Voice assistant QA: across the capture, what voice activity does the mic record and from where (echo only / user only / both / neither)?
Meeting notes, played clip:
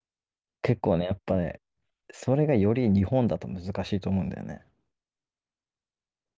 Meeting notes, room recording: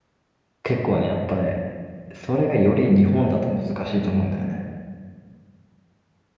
echo only